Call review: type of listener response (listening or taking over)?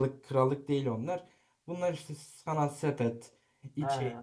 listening